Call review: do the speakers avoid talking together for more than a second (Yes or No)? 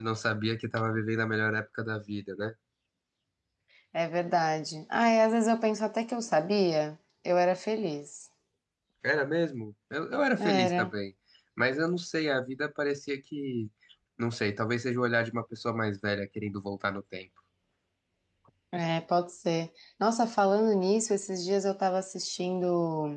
Yes